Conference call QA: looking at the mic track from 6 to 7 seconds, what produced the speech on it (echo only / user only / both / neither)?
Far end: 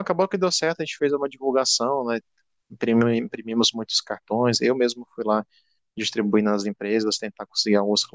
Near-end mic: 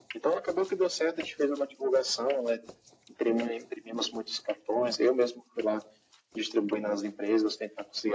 echo only